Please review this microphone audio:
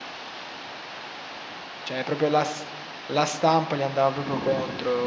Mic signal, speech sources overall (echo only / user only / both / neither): user only